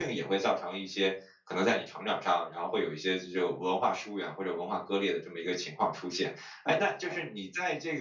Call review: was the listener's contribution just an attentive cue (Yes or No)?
Yes